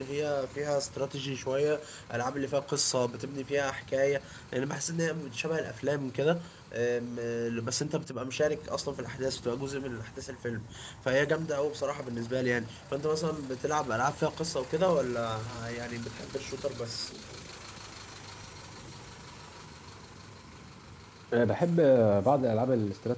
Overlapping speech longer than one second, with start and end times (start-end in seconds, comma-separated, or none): none